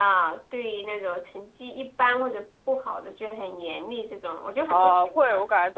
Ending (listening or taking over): taking over